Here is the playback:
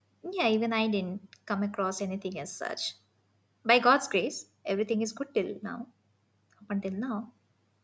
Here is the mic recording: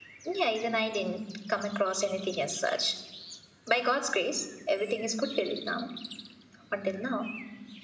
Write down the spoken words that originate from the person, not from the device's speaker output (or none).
none